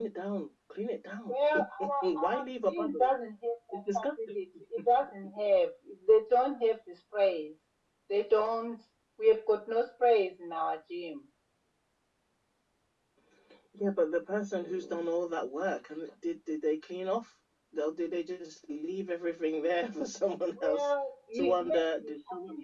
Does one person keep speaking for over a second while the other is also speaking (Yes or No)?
Yes